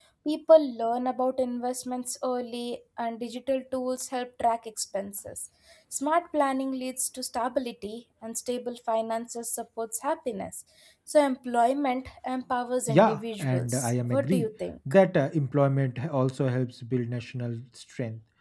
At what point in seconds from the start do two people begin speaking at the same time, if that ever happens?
12.9 s

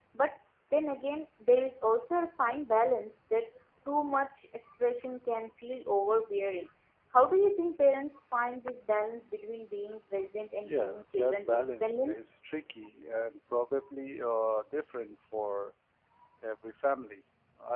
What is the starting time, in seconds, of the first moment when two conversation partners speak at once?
10.6 s

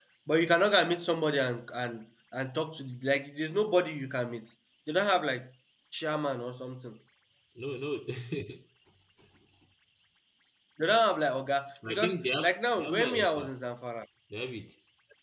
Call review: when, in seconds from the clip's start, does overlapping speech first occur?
11.8 s

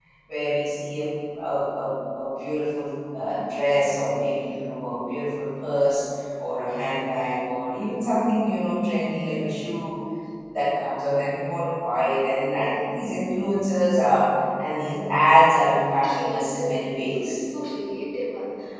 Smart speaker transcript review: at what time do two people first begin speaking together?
16.0 s

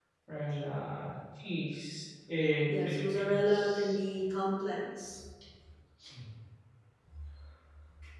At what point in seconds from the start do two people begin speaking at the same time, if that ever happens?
2.7 s

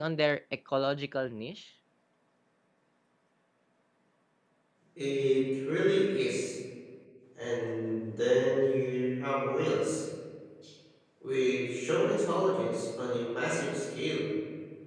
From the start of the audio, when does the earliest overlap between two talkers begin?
none

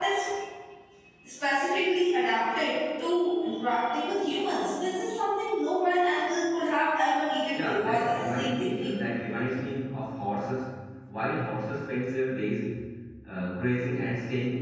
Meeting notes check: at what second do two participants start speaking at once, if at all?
7.5 s

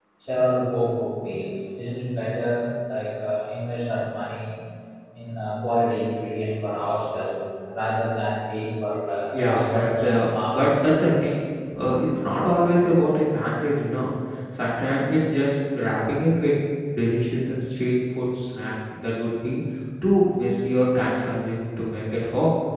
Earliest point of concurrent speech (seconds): 9.3 s

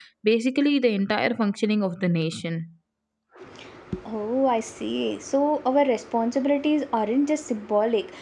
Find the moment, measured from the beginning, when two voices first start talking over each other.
none

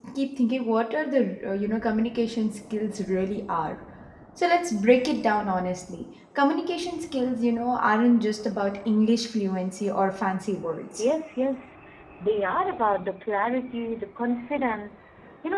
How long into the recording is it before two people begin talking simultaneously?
none

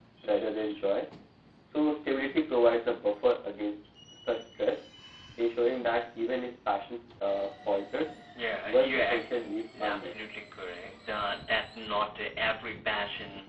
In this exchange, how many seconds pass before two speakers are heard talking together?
8.7 s

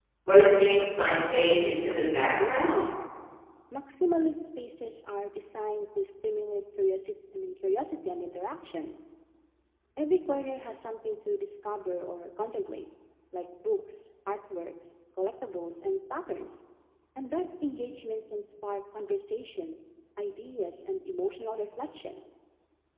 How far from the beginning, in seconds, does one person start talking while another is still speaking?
1.1 s

